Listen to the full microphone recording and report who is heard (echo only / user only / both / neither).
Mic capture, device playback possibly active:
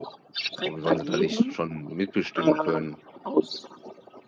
both